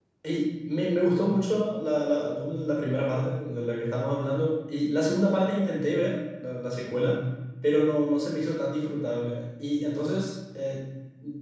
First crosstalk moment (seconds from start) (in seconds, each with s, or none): none